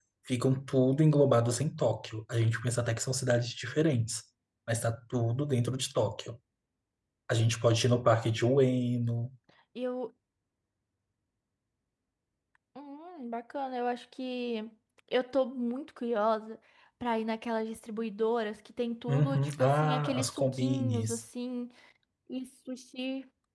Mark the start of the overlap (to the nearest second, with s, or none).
19 s